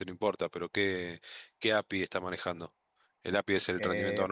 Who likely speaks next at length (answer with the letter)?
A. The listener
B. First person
A